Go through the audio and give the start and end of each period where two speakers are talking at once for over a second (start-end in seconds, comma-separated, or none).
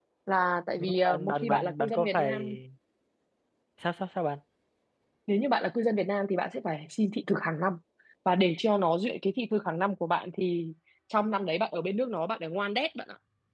0.8-2.4